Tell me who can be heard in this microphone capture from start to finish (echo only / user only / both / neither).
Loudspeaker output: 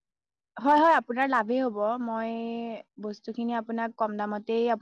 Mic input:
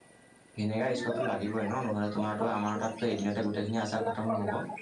both